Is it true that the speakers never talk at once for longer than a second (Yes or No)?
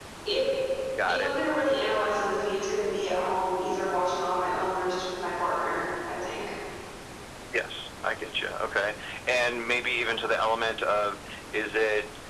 Yes